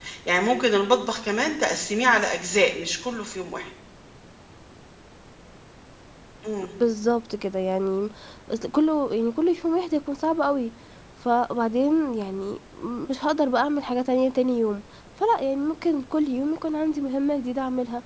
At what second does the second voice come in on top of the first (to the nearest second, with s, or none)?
none